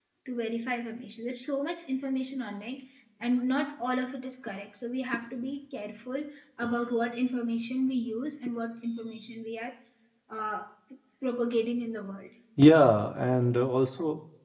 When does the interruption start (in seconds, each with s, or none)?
none